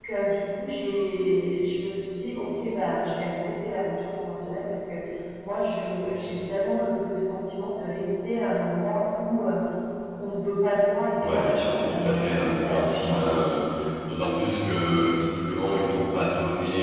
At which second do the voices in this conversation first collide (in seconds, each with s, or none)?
11.2 s